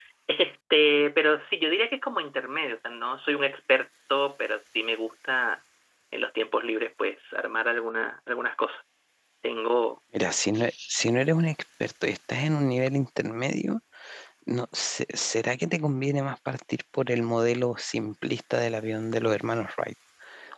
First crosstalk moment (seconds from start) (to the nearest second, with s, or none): none